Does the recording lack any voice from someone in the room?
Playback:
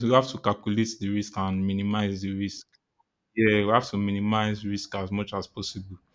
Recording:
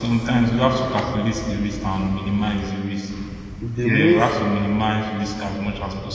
No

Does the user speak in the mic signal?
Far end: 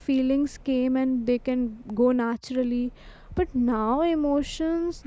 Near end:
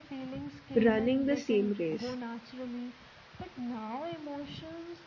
Yes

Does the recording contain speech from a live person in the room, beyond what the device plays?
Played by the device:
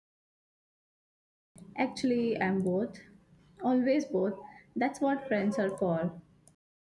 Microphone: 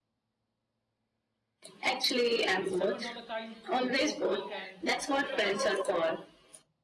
Yes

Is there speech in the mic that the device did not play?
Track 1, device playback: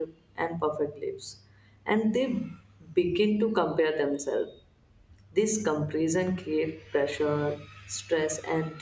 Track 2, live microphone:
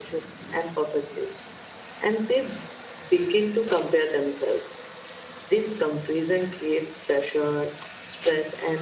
No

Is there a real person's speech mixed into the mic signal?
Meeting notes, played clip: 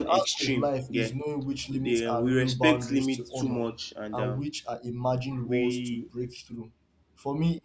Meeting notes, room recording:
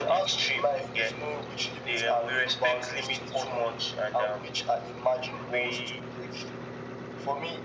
No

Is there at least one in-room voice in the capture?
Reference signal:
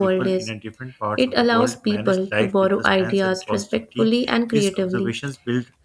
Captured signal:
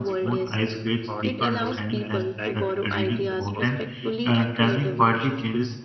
Yes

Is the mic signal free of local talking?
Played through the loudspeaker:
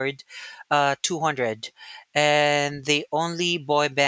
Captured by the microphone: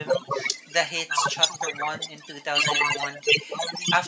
No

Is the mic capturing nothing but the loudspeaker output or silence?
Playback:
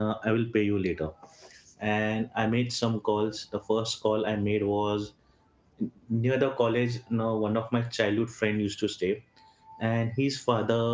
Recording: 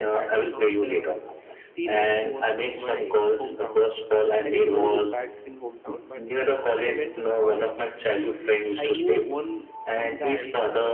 No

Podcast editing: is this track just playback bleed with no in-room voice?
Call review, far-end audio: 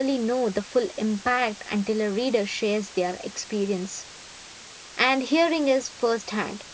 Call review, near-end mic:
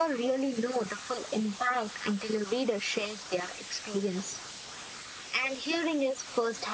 Yes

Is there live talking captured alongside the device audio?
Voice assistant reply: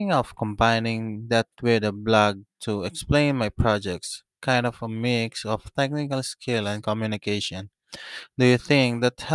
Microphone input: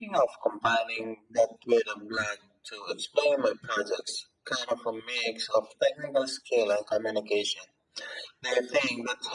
No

